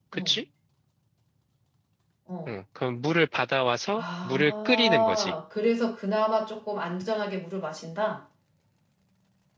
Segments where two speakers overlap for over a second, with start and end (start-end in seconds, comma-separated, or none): 4.0-5.3